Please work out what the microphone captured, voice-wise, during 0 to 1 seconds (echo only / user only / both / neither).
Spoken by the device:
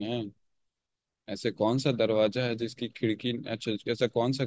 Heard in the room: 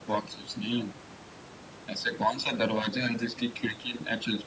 echo only